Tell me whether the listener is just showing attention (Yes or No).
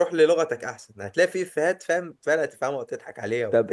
No